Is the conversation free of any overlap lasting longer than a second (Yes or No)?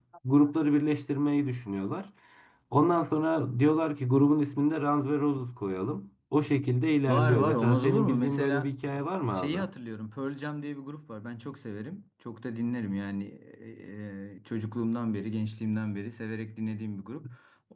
No